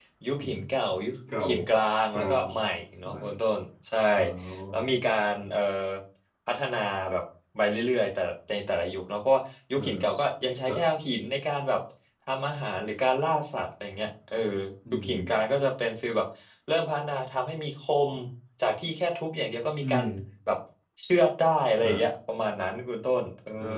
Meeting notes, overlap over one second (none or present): none